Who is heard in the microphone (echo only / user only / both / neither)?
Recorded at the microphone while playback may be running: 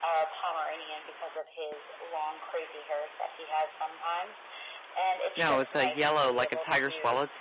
both